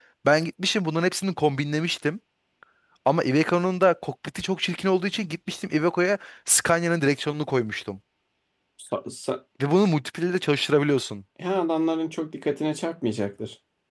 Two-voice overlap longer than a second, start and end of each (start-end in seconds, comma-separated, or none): none